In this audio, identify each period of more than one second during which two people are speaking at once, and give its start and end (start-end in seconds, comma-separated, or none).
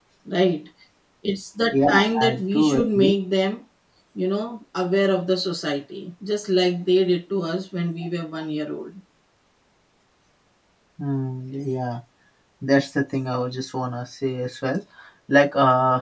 1.7-3.1